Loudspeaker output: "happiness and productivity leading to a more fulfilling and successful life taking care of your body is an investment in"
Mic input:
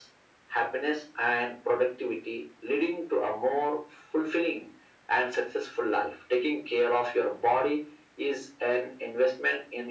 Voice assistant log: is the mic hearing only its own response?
Yes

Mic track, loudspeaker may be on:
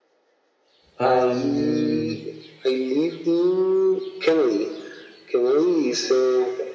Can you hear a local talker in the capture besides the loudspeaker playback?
Yes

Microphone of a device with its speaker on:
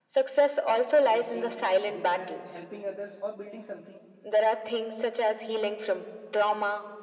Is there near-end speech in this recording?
Yes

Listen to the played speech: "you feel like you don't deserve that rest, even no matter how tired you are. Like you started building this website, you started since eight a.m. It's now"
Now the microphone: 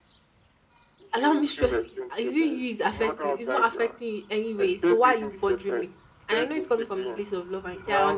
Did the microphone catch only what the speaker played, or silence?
No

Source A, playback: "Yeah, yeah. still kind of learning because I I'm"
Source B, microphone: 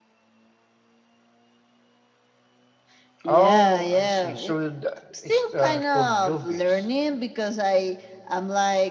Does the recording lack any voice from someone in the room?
No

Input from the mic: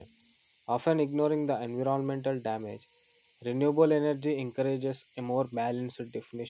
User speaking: Yes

